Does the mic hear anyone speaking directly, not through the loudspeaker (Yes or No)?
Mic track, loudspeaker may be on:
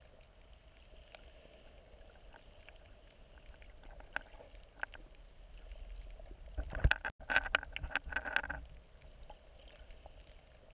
No